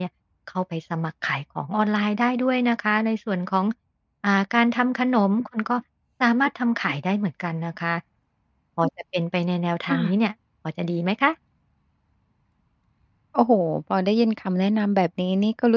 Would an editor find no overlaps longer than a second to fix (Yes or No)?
Yes